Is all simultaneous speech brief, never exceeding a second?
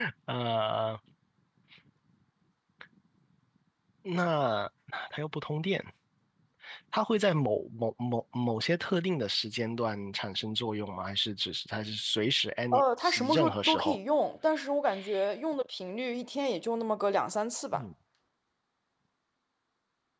No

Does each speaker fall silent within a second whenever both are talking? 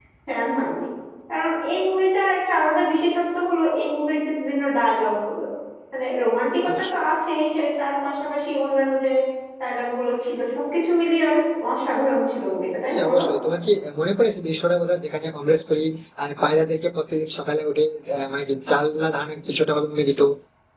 Yes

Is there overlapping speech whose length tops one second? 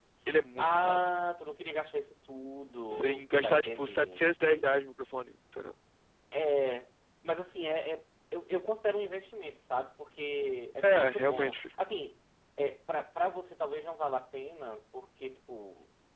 Yes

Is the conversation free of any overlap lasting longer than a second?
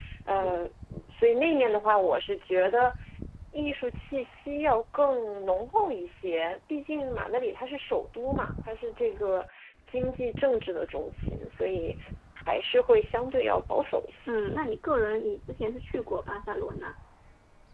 Yes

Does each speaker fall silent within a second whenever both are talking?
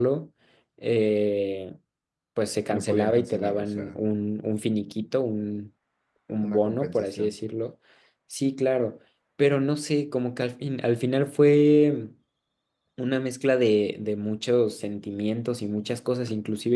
No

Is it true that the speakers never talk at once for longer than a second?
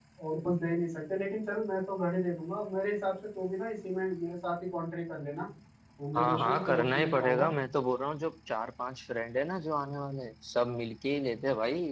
No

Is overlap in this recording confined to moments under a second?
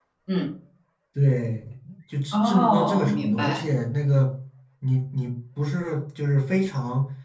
No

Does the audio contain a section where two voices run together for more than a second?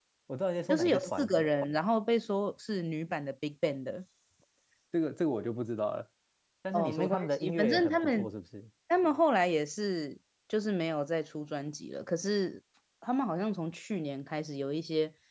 Yes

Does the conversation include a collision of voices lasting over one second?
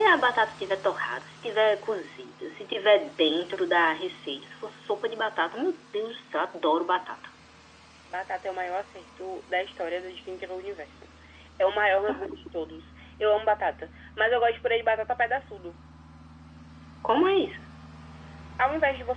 No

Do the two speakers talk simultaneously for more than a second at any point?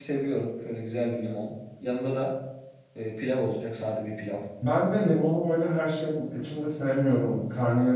No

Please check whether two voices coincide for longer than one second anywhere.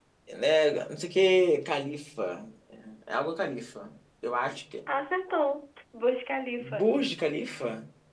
No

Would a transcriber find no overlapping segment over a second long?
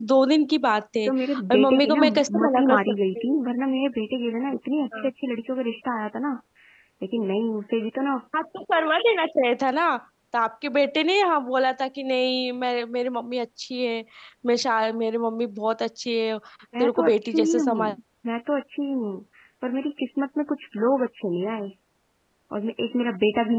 No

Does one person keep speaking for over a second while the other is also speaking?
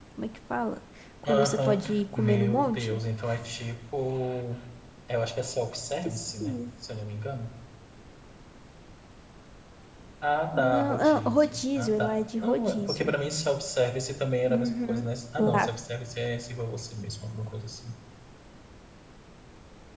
Yes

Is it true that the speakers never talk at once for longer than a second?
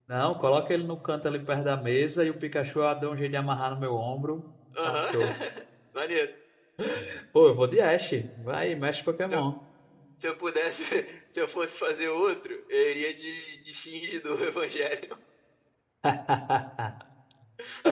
Yes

